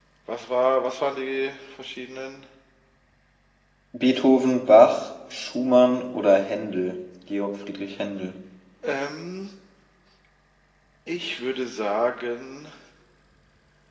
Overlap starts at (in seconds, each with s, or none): none